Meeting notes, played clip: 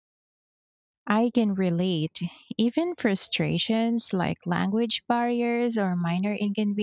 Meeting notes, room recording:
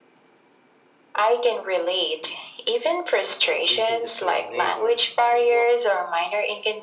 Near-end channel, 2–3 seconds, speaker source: echo only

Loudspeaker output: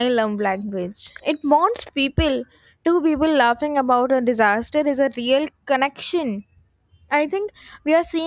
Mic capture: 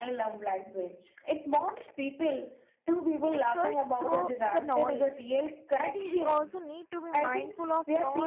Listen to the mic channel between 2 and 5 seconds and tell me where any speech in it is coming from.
both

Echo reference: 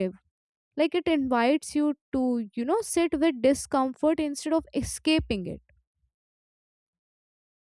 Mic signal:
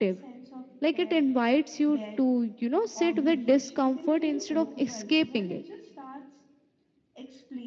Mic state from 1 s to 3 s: both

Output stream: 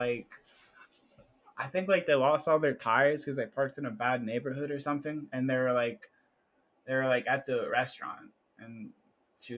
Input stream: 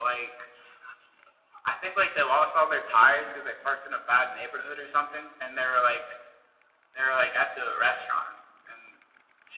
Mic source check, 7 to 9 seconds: echo only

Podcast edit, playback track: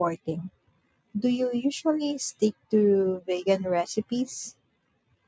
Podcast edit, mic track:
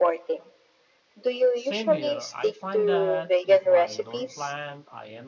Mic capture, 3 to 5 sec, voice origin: both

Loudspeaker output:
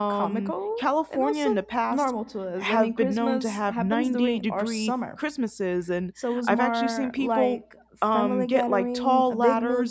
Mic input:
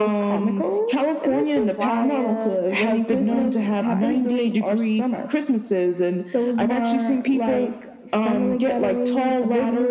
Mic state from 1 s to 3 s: both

